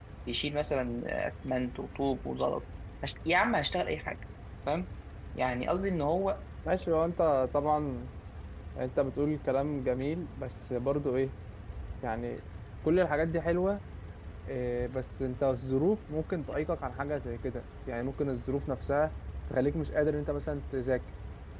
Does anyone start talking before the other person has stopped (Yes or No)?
No